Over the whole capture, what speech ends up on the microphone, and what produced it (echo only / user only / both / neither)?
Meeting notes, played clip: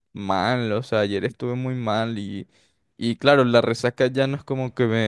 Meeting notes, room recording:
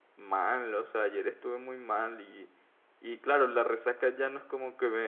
echo only